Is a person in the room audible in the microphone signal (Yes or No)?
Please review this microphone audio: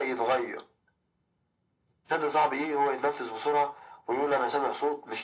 No